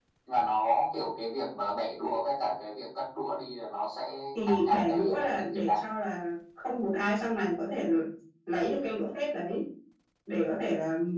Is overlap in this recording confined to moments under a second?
No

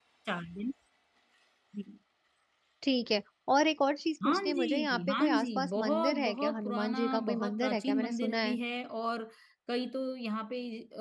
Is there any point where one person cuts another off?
Yes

